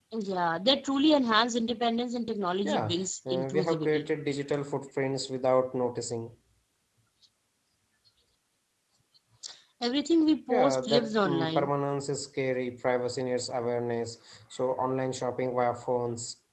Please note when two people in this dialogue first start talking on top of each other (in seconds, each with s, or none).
2.6 s